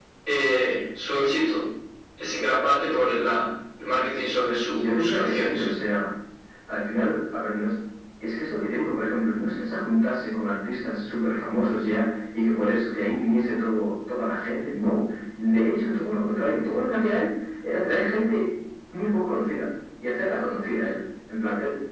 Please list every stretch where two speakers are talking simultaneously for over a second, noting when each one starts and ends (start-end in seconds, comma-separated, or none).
4.4-5.7